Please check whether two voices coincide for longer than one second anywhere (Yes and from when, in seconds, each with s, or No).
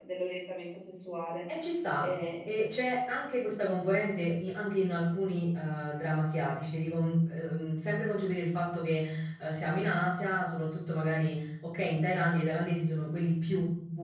No